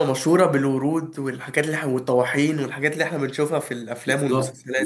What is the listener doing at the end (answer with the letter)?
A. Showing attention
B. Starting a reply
B